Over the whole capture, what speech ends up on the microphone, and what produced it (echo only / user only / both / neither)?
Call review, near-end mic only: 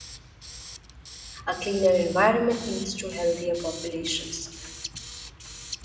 user only